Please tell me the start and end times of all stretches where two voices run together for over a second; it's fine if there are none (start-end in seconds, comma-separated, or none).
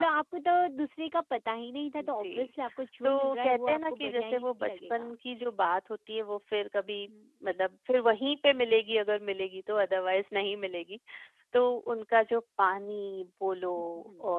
3.0-5.1